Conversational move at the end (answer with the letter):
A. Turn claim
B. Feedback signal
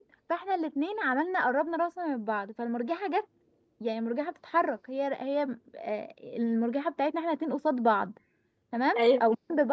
B